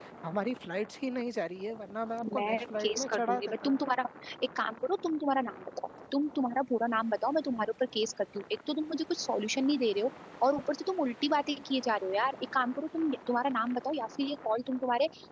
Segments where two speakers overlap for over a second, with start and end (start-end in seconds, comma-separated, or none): 2.3-3.7